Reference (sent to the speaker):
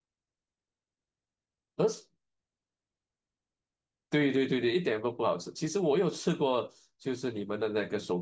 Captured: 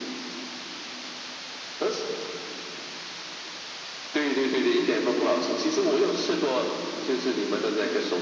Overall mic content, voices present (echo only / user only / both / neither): echo only